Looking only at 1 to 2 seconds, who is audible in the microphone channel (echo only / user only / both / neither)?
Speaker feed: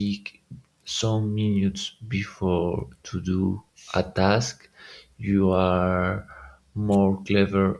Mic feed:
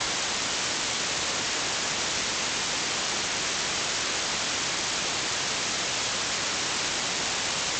neither